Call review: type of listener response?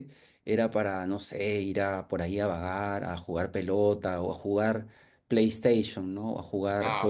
taking over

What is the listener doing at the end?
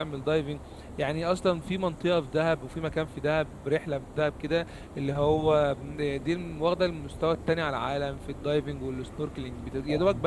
listening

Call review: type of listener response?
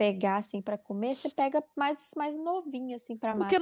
taking over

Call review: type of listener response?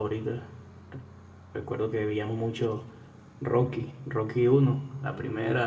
listening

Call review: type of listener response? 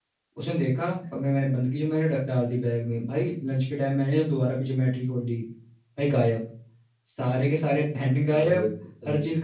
listening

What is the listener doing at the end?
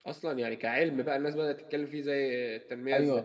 taking over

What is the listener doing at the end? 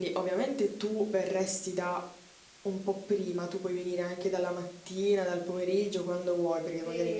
taking over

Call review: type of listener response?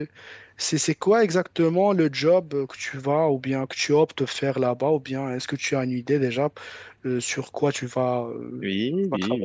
taking over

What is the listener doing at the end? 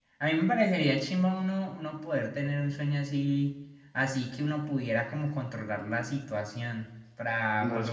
taking over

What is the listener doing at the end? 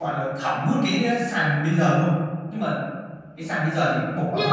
taking over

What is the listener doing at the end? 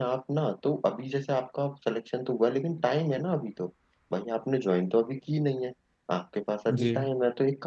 listening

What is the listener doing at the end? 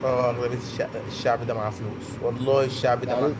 taking over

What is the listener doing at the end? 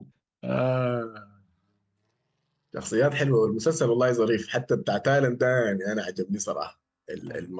listening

